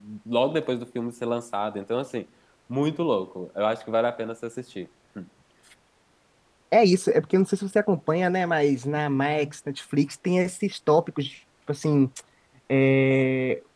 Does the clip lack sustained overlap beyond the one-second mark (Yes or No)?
Yes